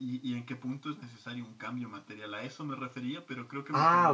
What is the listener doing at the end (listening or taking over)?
taking over